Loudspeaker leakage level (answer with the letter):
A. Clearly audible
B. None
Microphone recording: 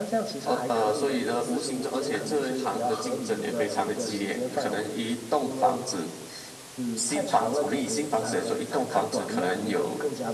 A